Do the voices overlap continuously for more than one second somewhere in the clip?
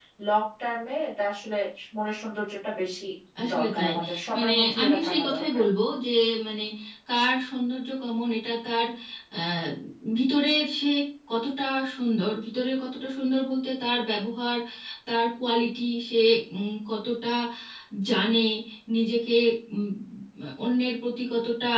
Yes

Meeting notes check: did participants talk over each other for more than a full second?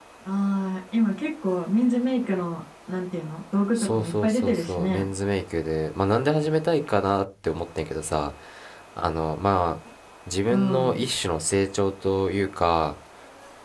Yes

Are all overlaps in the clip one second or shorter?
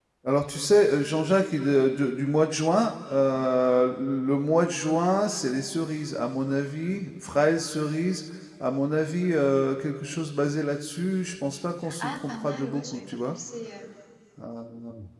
No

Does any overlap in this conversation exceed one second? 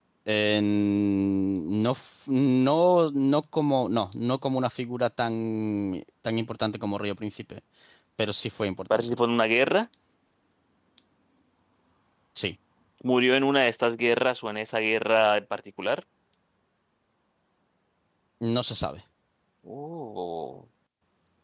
No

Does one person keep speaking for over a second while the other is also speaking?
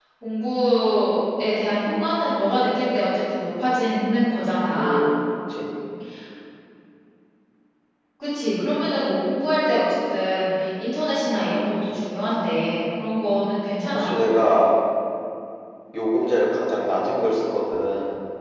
No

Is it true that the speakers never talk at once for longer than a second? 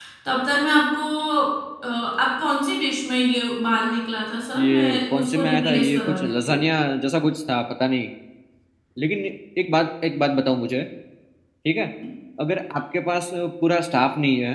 No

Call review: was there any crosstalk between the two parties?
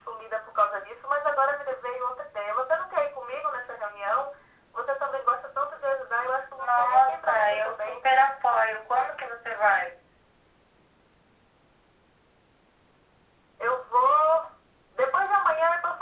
Yes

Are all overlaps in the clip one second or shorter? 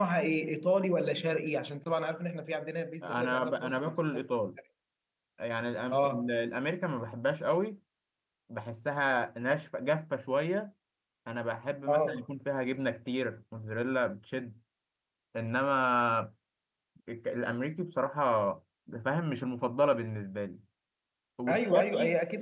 No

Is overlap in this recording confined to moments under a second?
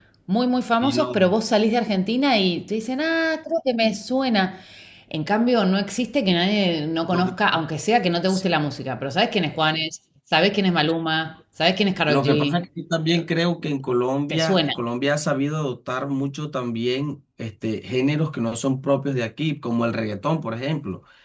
Yes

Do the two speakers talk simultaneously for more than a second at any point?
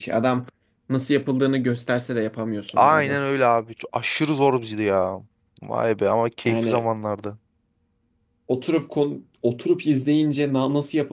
No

